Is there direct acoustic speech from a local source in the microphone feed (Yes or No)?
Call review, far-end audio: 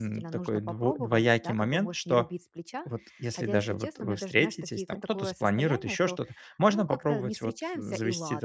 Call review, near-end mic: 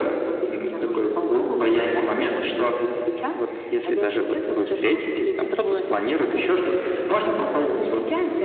No